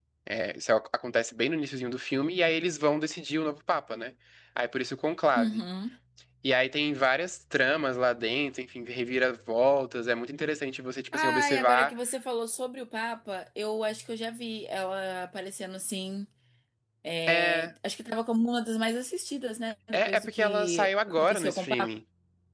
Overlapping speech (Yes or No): Yes